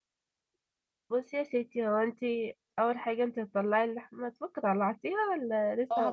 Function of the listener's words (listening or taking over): taking over